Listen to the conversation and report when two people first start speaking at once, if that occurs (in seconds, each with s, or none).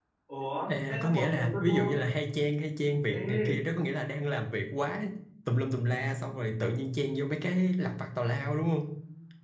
0.7 s